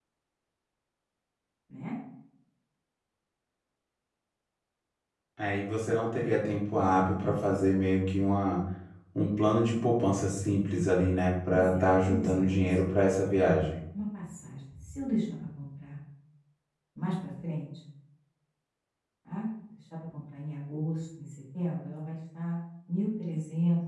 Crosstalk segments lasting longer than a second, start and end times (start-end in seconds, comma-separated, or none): 11.5-12.7